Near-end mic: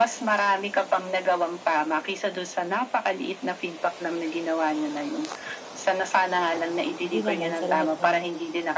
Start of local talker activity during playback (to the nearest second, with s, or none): 7 s